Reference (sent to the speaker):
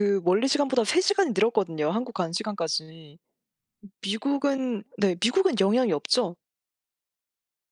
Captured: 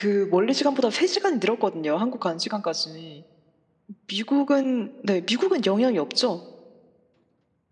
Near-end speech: none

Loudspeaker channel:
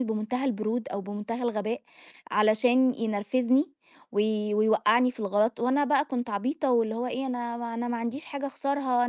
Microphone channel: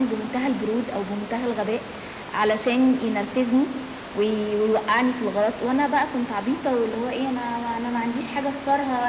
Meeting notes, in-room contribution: none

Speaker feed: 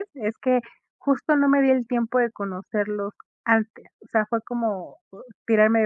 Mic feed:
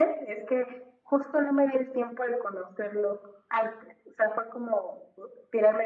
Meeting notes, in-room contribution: none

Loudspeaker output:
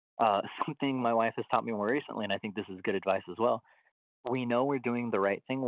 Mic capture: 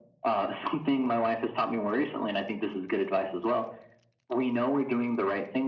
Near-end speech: none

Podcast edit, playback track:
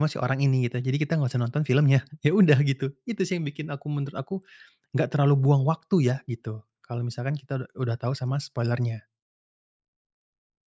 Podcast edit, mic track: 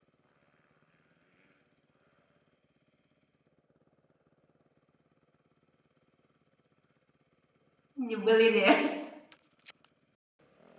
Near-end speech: present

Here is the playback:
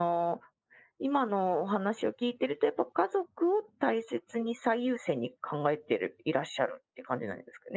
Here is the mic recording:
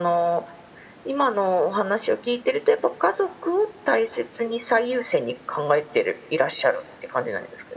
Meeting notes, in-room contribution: none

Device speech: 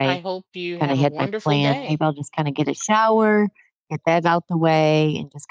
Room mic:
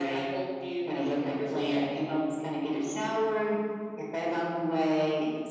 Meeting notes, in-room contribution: none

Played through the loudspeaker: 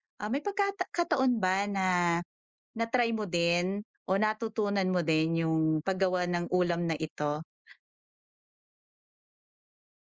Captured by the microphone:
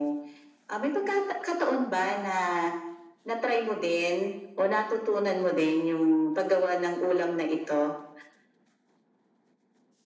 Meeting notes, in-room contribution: none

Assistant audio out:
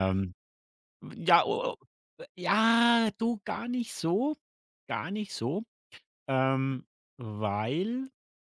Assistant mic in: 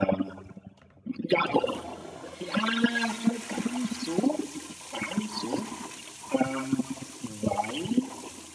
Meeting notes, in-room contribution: none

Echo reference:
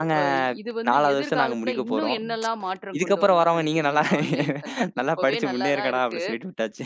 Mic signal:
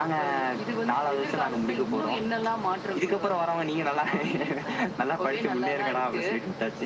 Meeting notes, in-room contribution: none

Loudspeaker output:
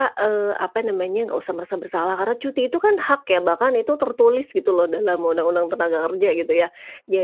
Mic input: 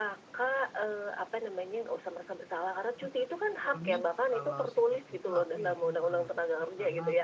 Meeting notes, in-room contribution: present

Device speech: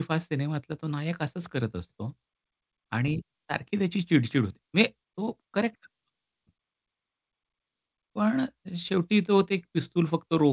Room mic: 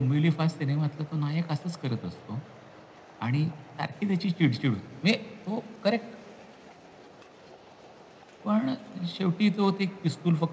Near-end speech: none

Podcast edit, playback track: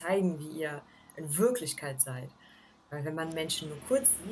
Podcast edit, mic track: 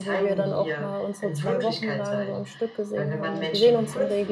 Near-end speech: present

